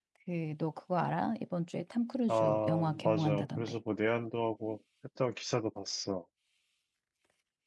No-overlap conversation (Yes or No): No